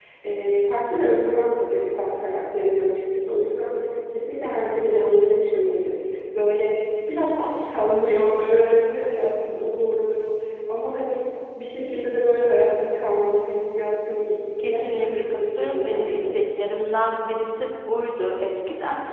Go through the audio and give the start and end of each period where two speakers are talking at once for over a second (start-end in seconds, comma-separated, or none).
14.7-16.4